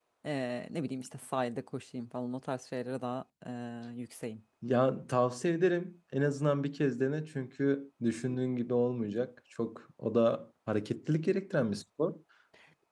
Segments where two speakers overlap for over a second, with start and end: none

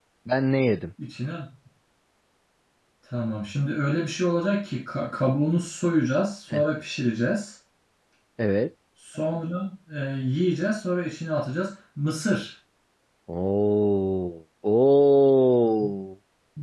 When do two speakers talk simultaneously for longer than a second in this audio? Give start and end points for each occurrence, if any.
none

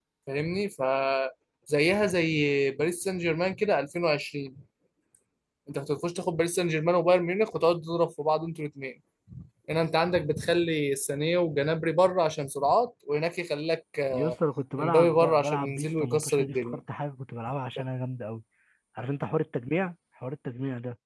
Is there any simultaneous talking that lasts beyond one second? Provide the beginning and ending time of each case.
14.8-16.8

